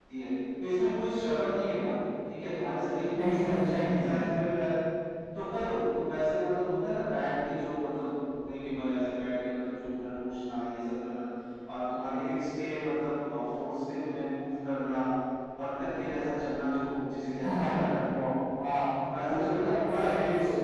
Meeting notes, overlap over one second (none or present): present